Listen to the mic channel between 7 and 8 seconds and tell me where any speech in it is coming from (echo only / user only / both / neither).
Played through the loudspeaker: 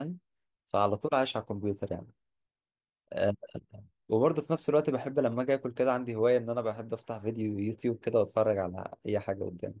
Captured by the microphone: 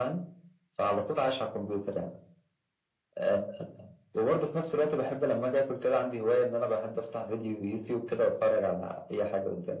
echo only